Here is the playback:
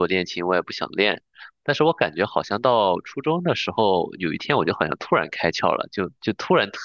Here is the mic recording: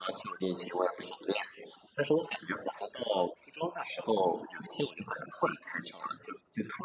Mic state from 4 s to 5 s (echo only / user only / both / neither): echo only